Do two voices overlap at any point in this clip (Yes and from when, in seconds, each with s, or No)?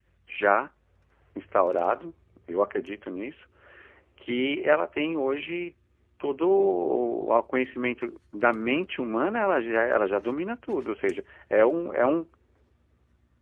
No